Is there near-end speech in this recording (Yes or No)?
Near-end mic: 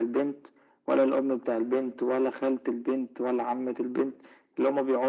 No